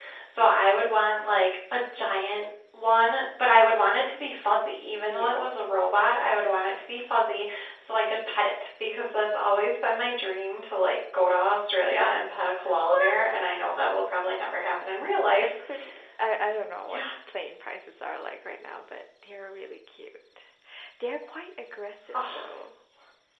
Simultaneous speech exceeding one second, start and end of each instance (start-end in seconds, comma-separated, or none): none